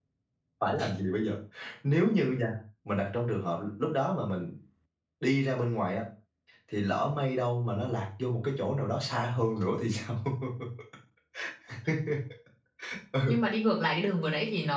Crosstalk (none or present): none